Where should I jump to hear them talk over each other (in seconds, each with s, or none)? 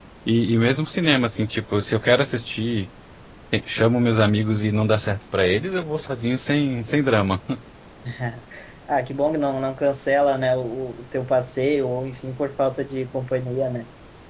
none